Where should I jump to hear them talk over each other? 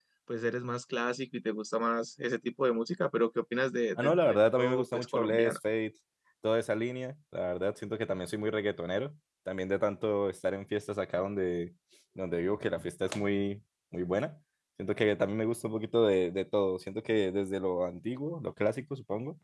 4.0 s

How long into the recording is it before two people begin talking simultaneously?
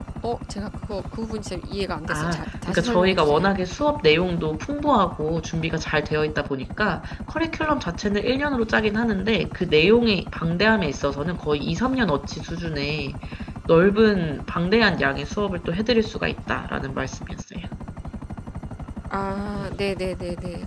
2.1 s

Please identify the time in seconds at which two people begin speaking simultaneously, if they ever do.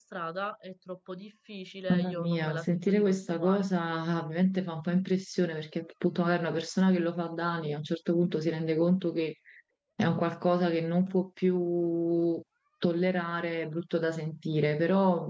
1.9 s

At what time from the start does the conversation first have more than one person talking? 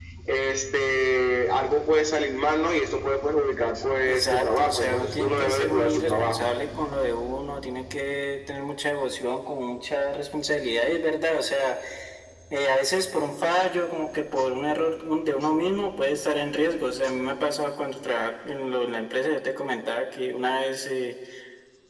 4.0 s

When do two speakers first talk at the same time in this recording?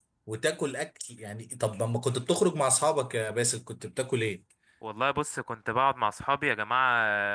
none

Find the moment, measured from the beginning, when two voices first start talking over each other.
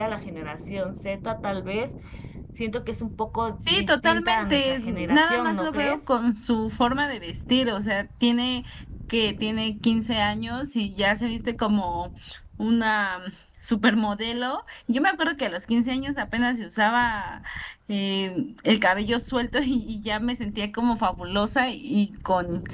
3.6 s

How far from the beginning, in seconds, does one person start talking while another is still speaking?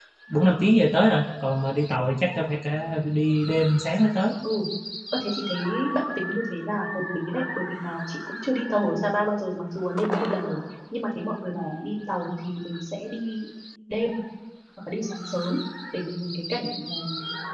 none

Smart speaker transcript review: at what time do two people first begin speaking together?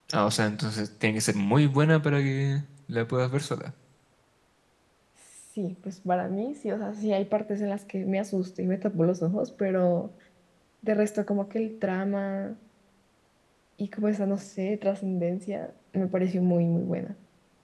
none

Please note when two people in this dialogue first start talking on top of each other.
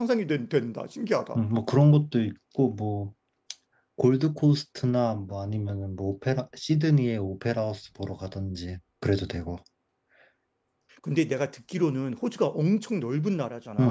none

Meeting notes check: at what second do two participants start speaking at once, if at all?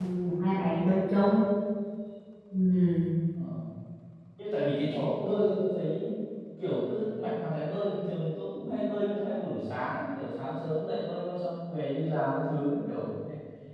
none

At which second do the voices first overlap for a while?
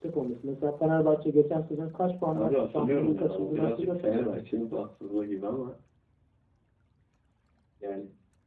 2.3 s

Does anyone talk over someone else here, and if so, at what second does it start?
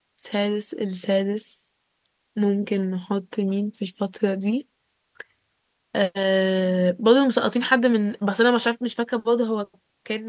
none

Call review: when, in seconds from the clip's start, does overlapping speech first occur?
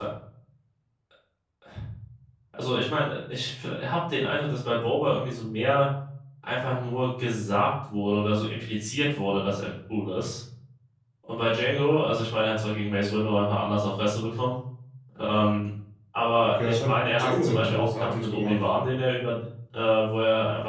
16.4 s

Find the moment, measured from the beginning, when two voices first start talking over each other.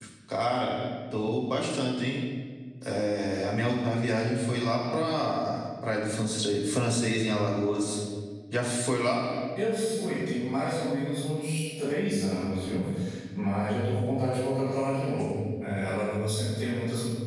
none

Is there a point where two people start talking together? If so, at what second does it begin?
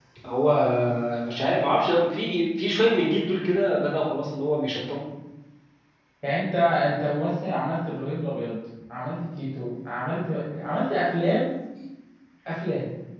none

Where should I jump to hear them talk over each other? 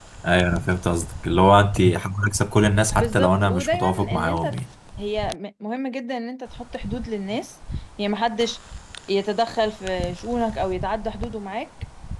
3.0 s

